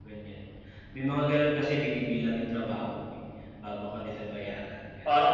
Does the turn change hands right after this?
Yes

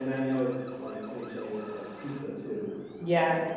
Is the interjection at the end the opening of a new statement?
No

